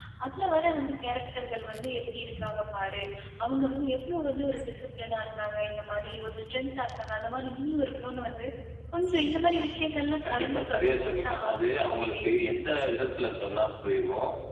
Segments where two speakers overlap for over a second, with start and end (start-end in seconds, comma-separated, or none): 10.3-12.4